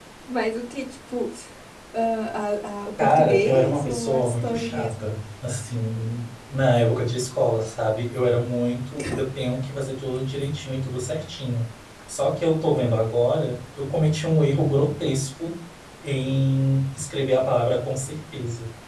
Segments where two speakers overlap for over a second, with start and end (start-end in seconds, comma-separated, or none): 3.0-5.1